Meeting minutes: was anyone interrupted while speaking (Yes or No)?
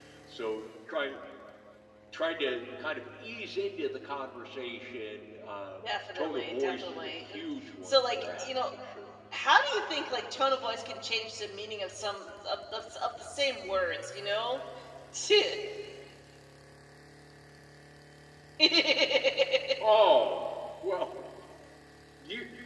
Yes